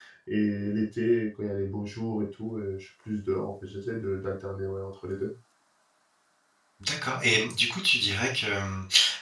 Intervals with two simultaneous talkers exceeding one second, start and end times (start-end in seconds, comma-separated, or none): none